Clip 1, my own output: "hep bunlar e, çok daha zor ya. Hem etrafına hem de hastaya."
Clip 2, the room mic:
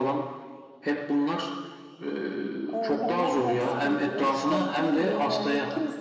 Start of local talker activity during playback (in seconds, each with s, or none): 2.7 s